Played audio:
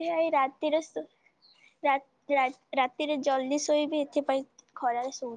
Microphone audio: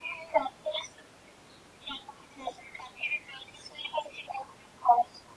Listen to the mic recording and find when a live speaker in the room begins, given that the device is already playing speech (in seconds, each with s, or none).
none